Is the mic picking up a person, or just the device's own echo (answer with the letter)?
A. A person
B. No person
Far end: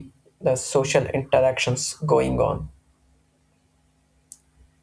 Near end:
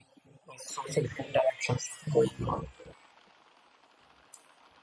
B